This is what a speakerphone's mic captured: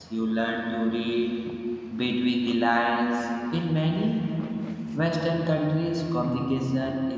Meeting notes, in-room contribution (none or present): present